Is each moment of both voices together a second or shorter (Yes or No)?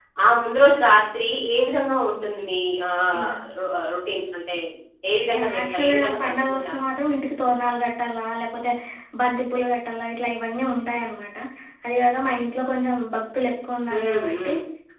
No